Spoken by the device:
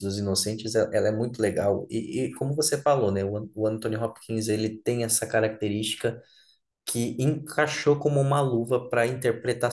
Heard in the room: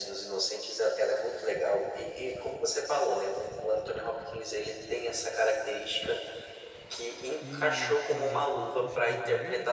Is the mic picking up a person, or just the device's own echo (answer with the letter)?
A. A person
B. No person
A